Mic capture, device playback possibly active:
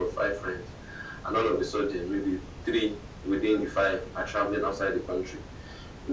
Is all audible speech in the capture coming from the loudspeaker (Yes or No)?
Yes